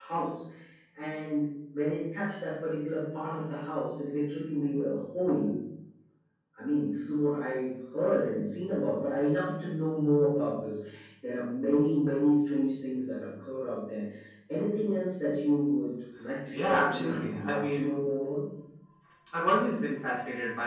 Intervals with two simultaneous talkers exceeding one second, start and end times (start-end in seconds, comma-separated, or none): 16.6-17.9